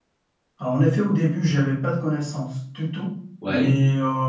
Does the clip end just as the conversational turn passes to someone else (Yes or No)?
No